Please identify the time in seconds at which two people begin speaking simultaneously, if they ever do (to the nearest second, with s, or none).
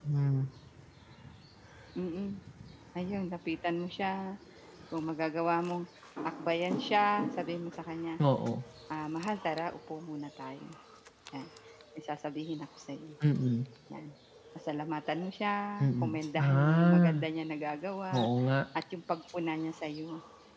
16 s